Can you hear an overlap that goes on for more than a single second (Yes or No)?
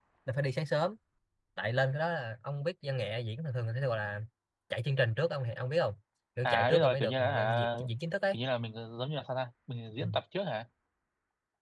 Yes